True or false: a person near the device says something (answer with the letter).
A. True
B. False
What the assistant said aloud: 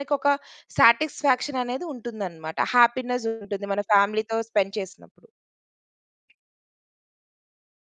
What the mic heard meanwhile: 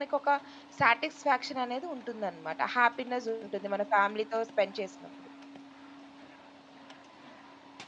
B